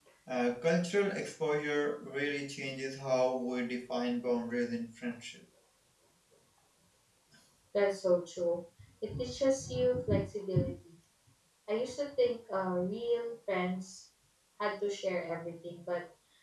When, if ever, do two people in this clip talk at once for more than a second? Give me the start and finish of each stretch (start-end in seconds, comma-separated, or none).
none